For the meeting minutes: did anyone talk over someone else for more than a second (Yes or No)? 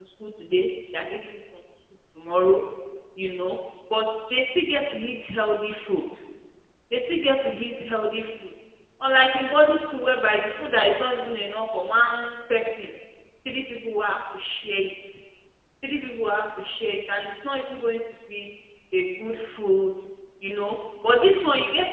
No